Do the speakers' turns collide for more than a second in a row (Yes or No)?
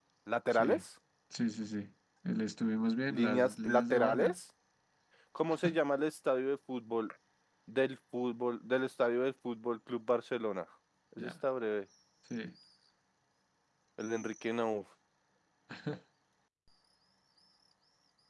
Yes